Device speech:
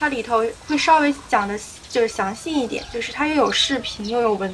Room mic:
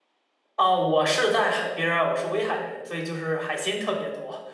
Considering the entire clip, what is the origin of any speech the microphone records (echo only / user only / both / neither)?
user only